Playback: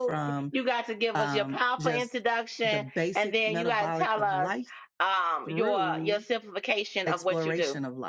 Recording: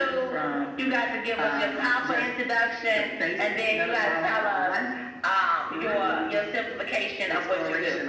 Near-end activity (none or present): none